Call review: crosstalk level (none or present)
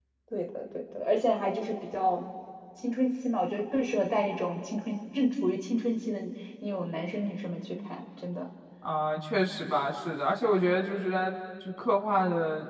none